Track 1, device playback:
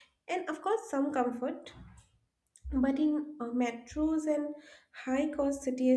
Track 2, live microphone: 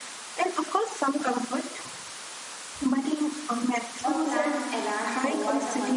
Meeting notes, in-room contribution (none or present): present